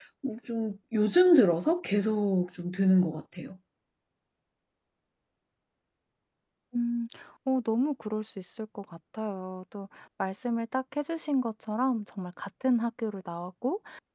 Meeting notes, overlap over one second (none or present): none